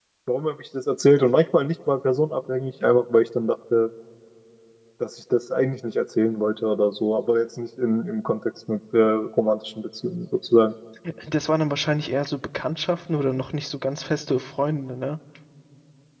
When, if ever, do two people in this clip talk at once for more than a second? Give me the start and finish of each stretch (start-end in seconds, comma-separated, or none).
none